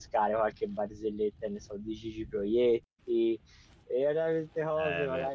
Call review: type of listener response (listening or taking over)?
listening